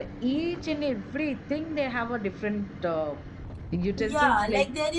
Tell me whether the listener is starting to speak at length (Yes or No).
Yes